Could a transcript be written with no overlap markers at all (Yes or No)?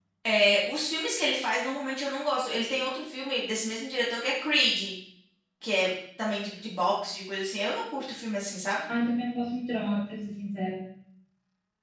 Yes